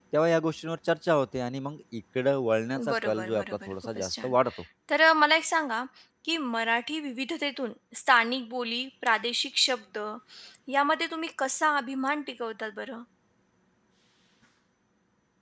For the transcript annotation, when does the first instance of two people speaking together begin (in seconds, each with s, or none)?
2.8 s